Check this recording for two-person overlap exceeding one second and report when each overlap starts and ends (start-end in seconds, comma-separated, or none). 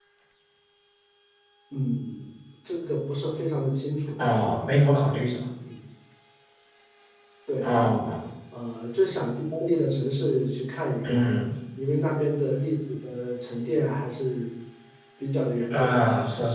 none